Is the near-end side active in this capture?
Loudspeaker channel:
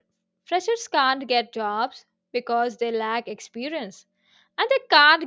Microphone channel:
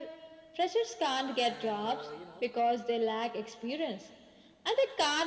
Yes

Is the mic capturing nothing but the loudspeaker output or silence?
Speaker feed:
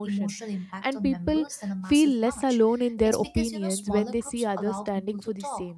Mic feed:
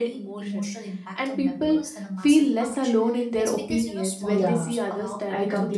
No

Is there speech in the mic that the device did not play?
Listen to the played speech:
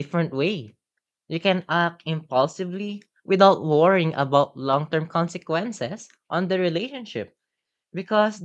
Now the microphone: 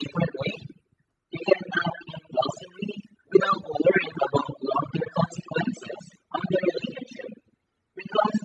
No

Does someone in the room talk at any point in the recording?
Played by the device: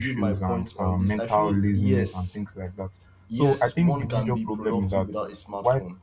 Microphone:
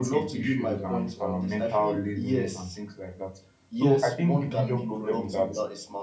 No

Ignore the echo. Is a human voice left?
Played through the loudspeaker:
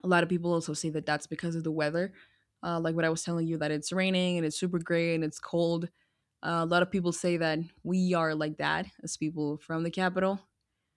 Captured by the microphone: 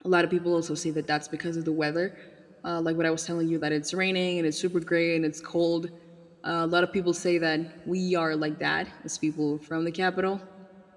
No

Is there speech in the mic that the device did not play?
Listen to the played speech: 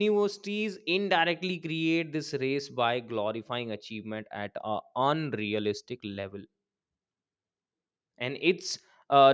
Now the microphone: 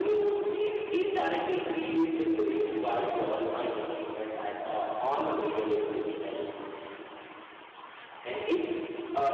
No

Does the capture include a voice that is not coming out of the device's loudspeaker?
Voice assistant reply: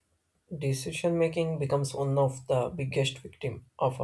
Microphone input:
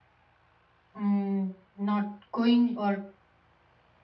Yes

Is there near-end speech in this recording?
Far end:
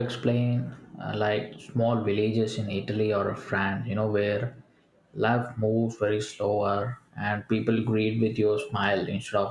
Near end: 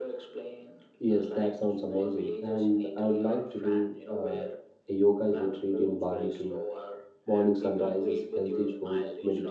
Yes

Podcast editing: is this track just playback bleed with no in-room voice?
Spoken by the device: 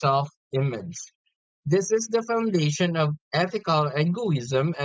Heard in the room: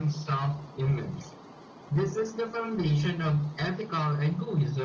Yes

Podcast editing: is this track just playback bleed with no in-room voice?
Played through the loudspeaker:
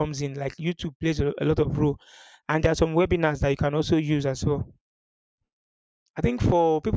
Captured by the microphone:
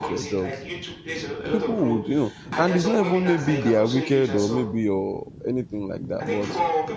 No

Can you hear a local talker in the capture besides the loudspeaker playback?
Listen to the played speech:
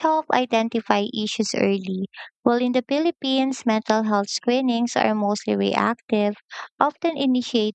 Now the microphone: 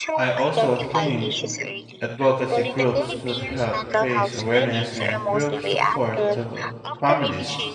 Yes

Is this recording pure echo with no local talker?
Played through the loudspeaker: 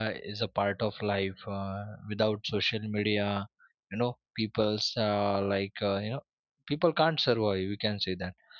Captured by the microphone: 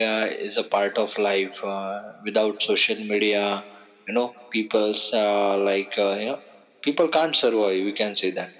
Yes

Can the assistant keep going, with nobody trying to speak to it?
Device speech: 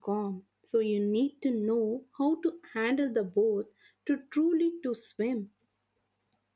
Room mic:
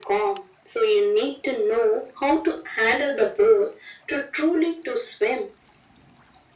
Yes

